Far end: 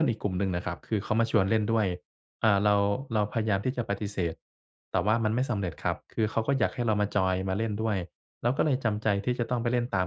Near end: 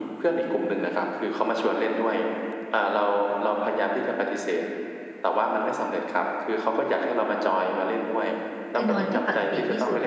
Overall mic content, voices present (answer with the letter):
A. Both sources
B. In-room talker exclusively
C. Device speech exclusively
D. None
A